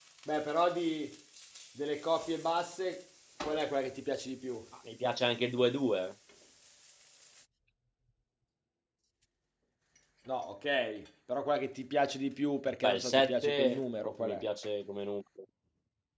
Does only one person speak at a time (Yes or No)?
No